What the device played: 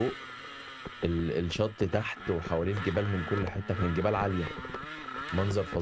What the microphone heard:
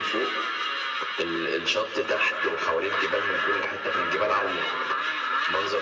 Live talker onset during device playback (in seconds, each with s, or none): none